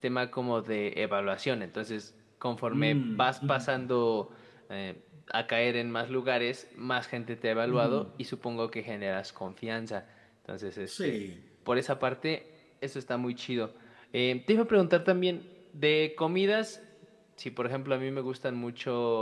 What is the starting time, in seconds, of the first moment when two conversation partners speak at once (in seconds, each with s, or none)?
2.6 s